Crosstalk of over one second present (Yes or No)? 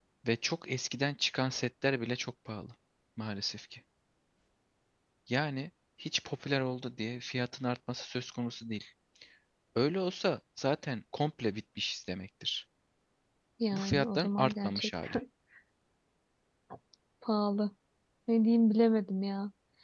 Yes